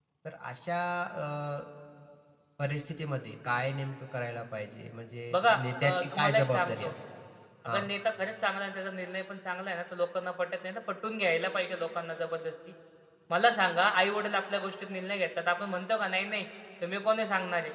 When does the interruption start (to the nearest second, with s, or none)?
5 s